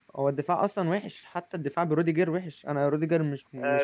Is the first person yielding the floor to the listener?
Yes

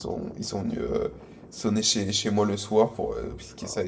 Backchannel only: Yes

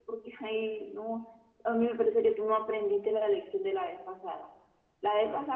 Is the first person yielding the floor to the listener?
No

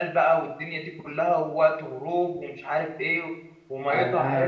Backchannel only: No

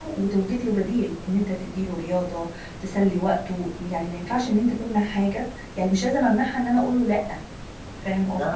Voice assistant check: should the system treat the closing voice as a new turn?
Yes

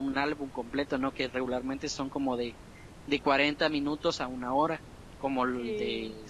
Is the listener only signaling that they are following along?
Yes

